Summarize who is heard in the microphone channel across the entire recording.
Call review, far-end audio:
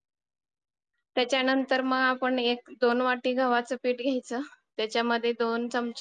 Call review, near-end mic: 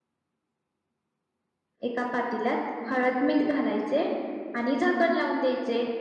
user only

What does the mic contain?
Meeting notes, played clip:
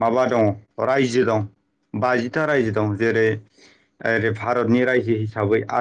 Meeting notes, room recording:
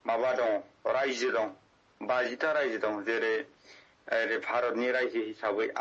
echo only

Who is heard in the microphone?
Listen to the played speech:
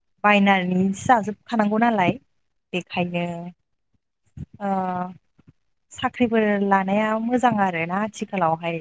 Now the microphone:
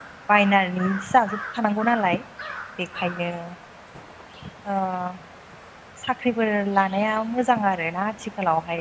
echo only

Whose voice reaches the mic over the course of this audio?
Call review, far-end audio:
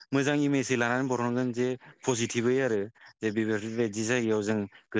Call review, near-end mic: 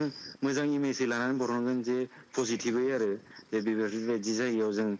echo only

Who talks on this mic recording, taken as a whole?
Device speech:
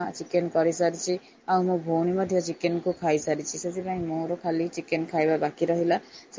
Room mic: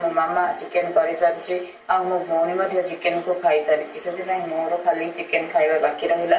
echo only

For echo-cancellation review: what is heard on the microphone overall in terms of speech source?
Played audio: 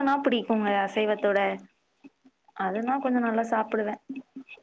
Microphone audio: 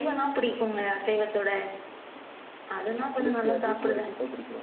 both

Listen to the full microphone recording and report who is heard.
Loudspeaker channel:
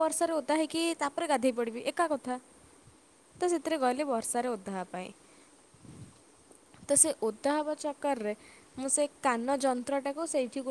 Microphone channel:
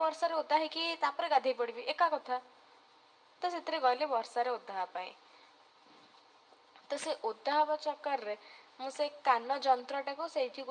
echo only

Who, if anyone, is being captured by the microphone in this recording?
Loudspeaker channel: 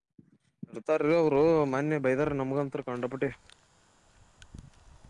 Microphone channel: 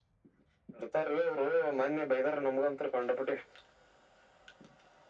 echo only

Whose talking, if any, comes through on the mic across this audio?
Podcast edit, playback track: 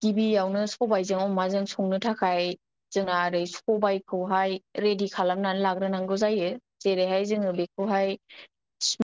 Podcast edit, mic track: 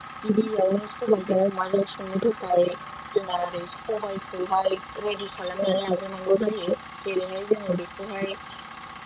echo only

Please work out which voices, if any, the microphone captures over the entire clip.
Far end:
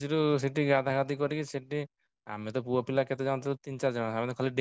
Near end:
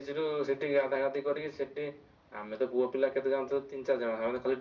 echo only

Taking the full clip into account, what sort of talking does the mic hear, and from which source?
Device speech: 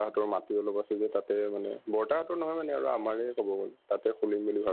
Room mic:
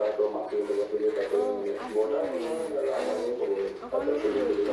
both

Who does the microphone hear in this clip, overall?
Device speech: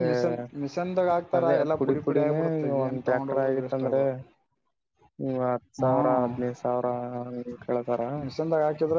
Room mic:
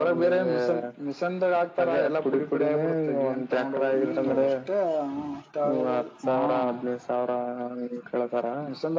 both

